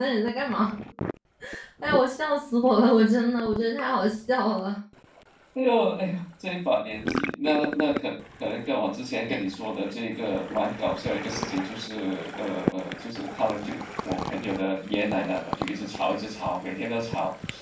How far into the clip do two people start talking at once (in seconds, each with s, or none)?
none